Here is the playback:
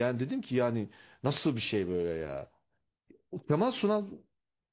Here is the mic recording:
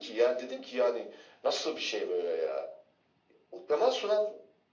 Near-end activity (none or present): none